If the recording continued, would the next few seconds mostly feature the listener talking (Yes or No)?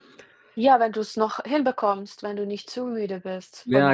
Yes